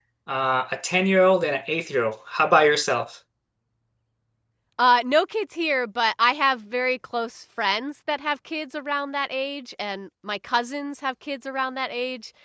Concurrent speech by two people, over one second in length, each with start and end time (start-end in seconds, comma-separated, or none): none